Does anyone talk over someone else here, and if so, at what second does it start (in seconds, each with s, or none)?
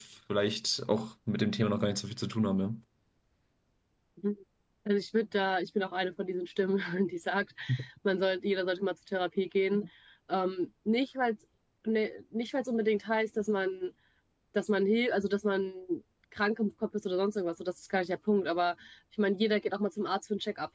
none